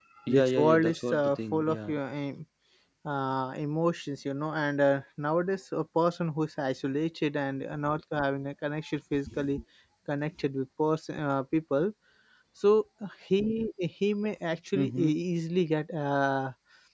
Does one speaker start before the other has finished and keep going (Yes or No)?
Yes